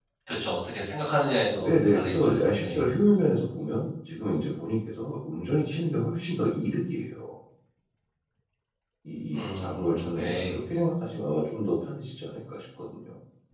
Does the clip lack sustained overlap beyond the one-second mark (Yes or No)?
No